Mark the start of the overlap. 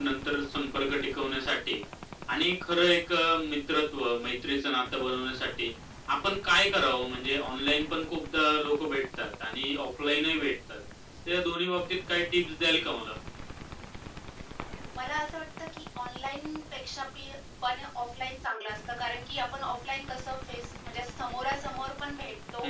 none

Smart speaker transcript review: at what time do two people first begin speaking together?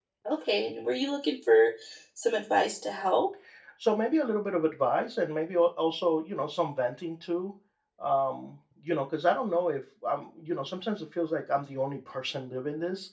none

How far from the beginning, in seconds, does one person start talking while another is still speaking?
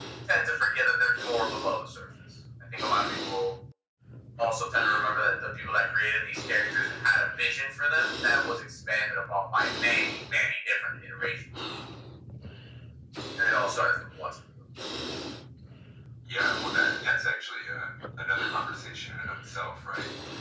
none

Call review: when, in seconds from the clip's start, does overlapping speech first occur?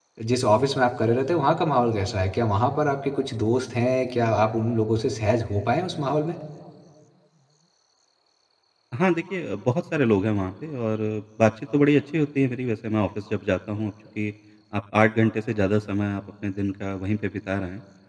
none

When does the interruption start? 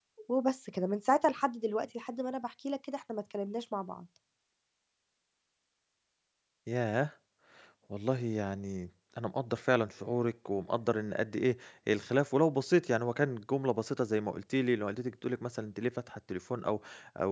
none

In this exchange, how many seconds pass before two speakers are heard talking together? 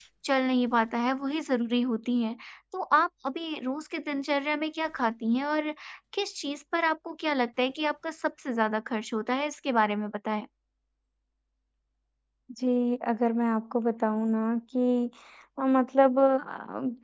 none

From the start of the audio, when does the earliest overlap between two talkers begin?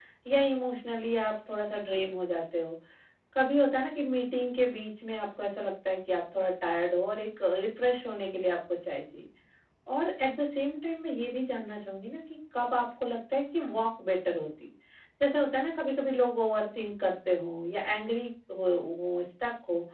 none

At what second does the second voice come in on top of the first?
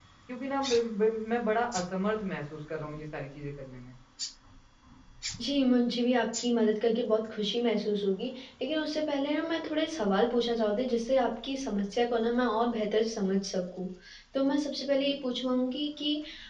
none

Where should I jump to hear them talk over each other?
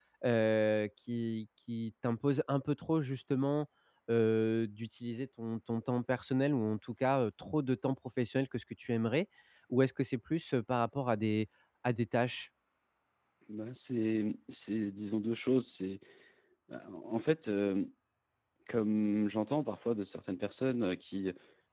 none

